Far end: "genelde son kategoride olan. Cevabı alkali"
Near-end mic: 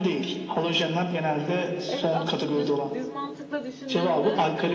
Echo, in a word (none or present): present